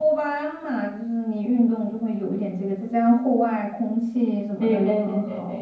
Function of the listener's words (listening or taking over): taking over